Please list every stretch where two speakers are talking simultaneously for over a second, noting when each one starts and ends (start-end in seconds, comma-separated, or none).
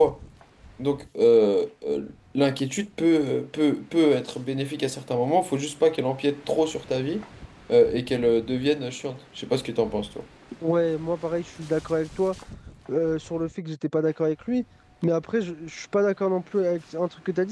none